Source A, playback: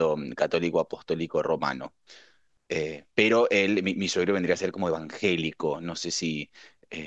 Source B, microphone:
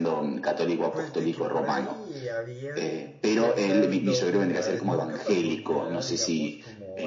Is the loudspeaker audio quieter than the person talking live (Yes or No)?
No